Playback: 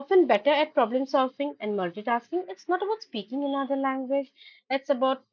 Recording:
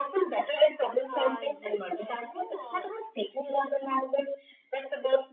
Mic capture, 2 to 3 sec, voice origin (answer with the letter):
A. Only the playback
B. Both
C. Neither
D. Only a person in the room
B